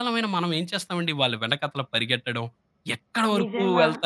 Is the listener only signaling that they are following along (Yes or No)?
Yes